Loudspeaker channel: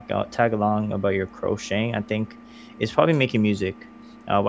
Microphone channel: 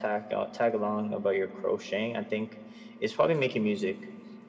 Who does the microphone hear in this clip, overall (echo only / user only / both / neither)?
echo only